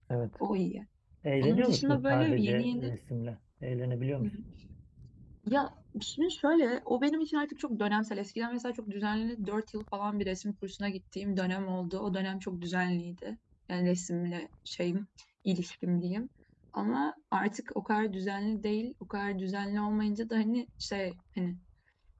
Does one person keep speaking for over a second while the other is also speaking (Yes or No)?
Yes